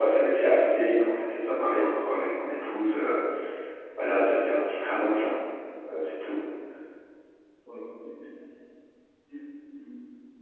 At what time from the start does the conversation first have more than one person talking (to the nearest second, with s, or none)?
none